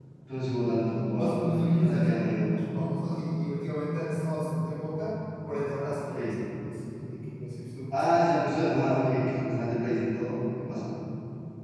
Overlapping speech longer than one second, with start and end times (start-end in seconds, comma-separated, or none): 1.1-2.6